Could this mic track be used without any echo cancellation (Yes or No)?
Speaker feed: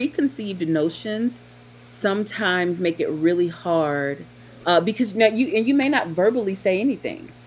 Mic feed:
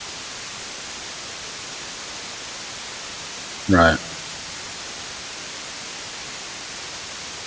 Yes